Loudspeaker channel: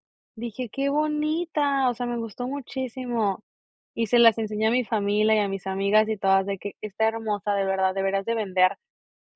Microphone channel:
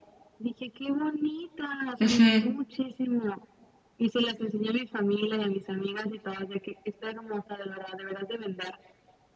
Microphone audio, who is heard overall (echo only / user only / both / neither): both